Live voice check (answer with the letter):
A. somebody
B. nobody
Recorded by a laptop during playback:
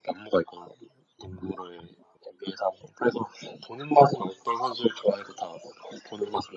B